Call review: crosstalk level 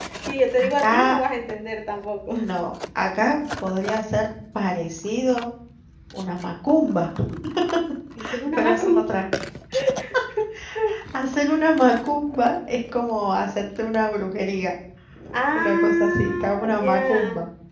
present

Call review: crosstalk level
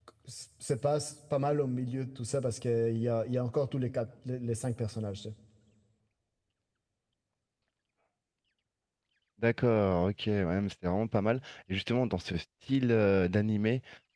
none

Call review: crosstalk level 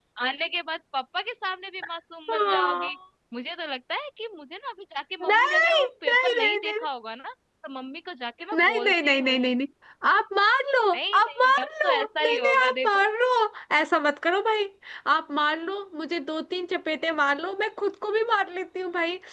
present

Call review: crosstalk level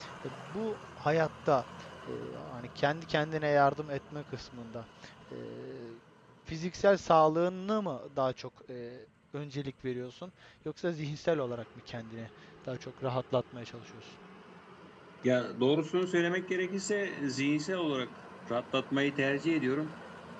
none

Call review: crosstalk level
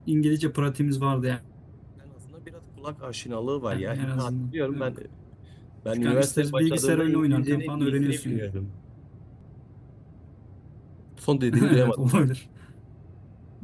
present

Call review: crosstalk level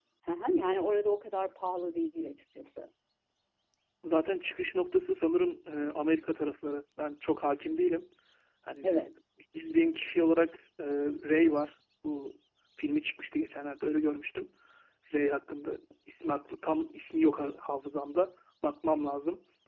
none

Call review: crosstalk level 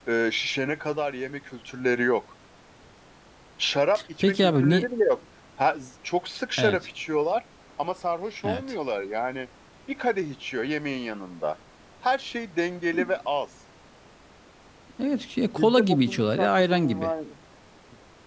present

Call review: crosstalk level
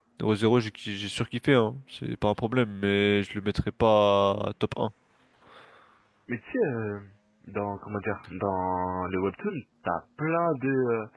none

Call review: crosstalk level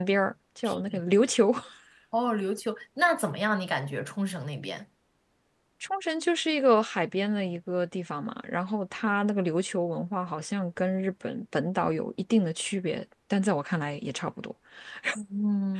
none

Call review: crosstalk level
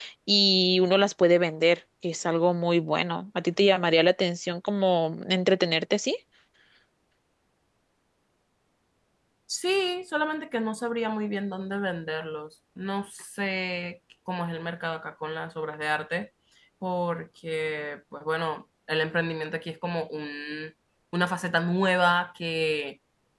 none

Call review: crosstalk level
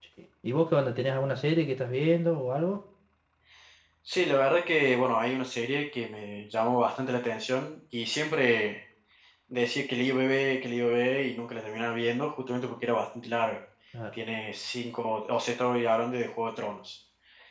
none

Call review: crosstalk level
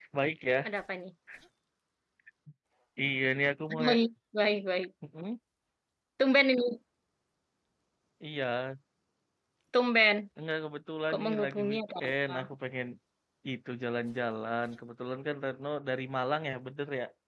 present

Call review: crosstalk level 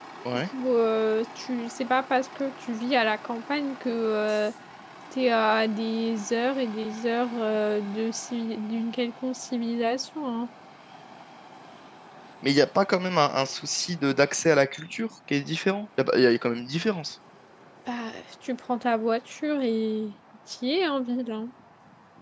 none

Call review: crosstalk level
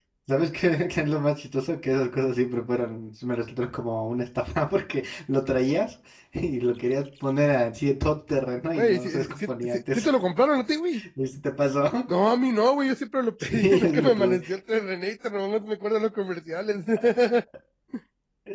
present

